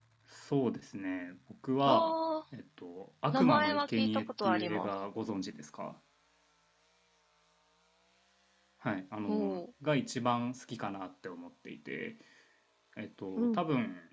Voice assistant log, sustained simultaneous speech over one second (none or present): present